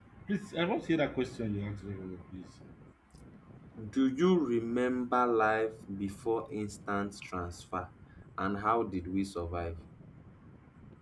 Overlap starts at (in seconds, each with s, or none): none